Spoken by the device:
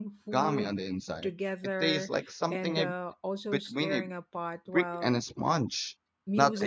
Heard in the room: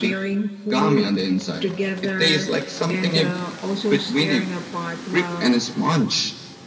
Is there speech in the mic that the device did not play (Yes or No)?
No